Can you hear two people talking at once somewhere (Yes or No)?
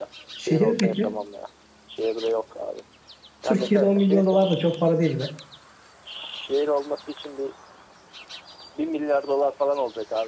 Yes